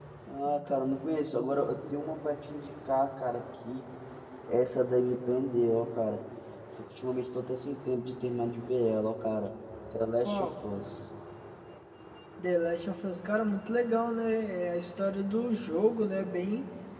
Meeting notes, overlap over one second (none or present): none